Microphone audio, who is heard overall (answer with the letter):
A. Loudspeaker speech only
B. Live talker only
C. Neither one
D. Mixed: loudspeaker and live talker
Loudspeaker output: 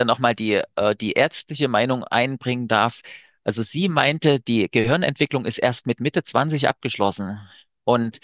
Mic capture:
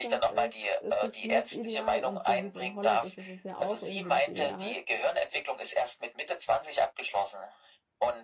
D